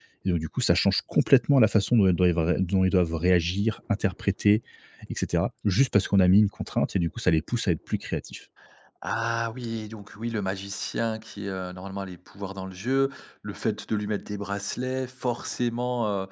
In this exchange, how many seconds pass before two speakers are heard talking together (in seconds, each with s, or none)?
none